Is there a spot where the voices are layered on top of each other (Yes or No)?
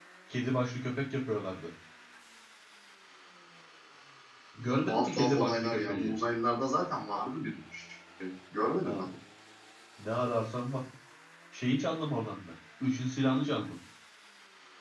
Yes